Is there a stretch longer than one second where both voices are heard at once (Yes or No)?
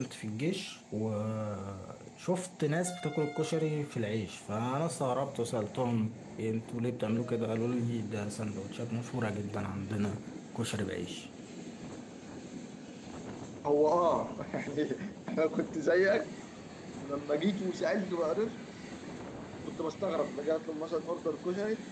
No